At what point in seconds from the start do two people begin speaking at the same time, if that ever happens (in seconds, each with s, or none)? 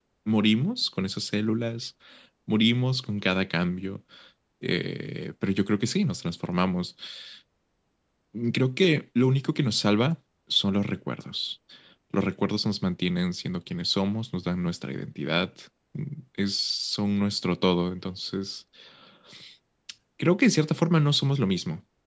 none